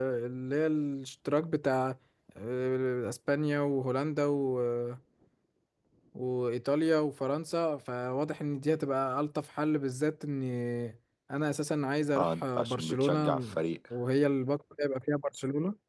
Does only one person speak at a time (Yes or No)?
No